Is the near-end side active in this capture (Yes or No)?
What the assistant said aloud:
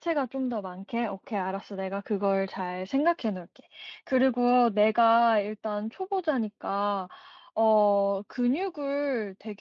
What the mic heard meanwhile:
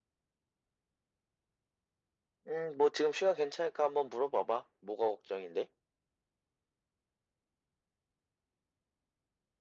Yes